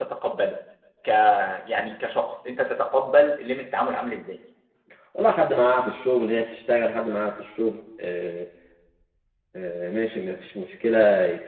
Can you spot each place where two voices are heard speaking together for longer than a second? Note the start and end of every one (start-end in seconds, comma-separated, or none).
none